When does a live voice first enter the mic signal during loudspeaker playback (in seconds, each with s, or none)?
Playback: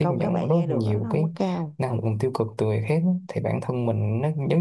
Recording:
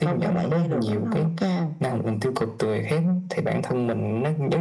none